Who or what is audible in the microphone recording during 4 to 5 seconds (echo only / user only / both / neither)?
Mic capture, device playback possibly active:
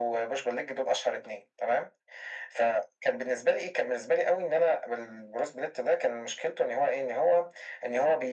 echo only